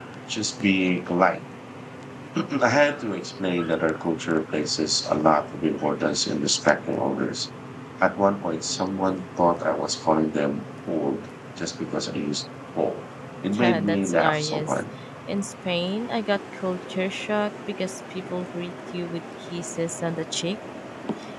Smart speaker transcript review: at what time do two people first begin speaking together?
13.6 s

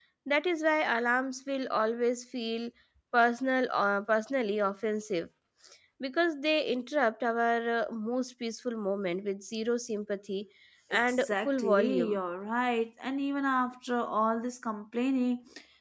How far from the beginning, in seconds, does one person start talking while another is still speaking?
10.9 s

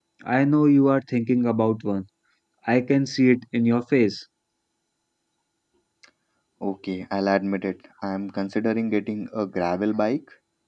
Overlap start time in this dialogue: none

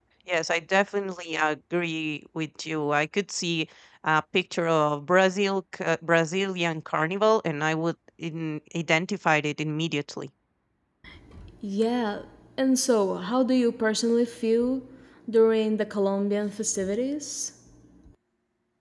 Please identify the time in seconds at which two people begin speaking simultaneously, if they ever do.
none

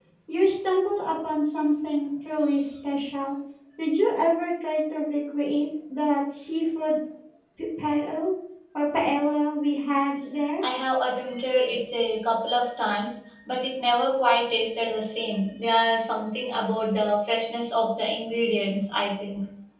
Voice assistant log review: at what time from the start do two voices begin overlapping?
none

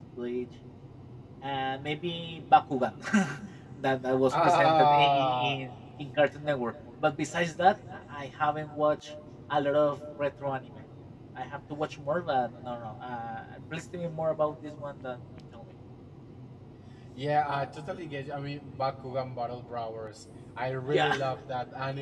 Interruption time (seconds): 4.3 s

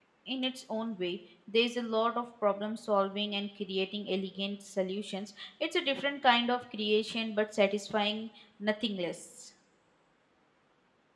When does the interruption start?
none

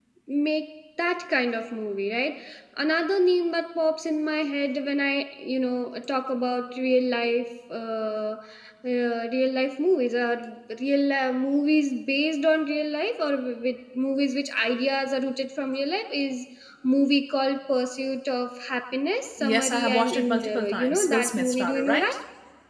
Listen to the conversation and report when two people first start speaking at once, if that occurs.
19.4 s

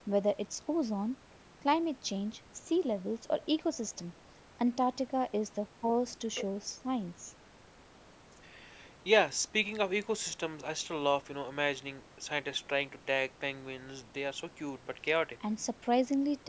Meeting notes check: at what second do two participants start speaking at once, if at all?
none

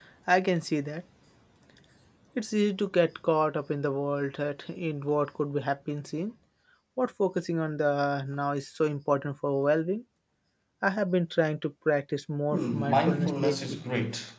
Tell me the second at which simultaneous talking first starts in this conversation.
12.5 s

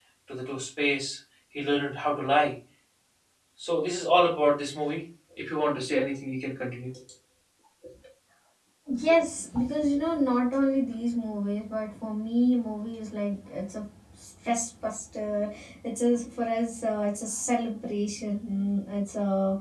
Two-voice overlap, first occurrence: none

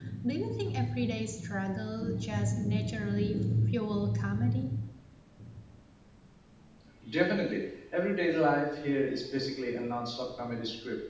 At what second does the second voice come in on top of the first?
none

